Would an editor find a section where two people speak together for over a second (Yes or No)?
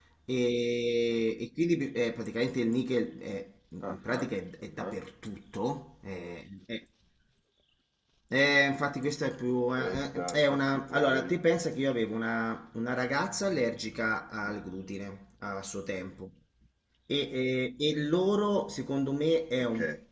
Yes